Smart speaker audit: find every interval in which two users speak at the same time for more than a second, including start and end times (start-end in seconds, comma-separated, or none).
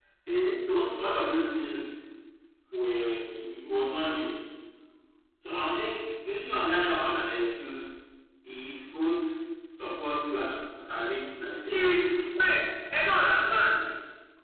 none